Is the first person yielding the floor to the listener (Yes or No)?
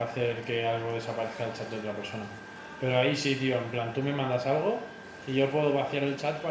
No